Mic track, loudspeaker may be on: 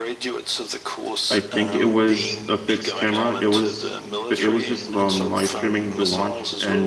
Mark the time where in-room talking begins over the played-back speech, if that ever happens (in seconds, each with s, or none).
1.3 s